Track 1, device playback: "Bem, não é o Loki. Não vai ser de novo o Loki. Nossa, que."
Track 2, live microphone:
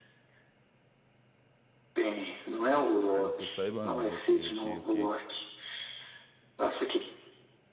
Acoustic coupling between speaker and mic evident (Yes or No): Yes